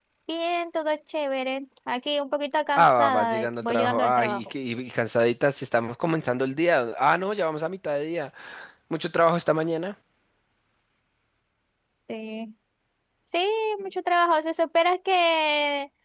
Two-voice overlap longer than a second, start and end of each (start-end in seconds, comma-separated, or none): 2.8-4.4